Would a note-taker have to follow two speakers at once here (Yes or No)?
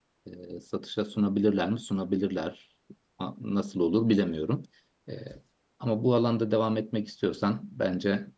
No